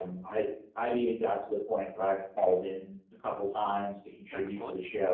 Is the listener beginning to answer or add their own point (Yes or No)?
No